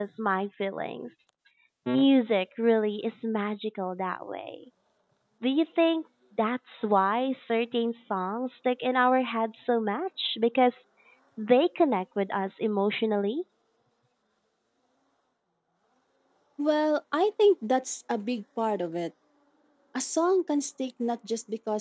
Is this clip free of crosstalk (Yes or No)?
Yes